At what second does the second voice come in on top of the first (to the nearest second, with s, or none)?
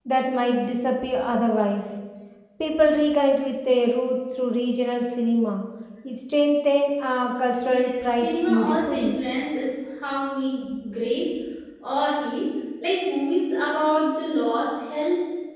8 s